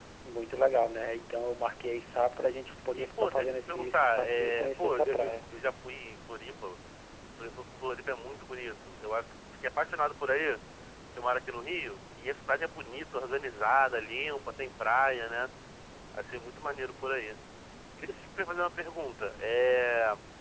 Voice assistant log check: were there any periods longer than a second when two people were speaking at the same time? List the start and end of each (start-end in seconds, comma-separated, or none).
2.9-5.3